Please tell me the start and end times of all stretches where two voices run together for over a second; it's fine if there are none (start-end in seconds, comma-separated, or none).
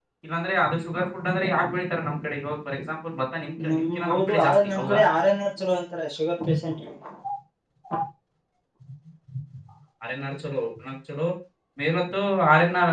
3.7-5.0